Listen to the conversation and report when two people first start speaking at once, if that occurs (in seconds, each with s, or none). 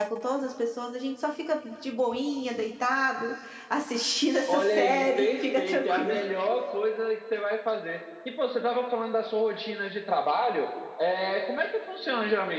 4.5 s